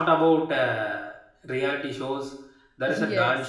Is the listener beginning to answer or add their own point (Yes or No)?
No